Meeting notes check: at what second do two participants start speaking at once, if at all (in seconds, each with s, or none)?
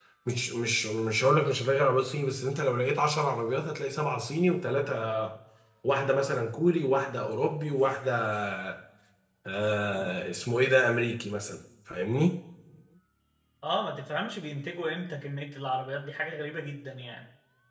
none